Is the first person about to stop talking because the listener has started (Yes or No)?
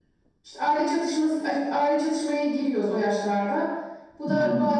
No